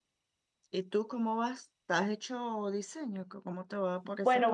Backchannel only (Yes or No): No